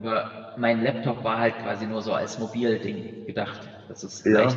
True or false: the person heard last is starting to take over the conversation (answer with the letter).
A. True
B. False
B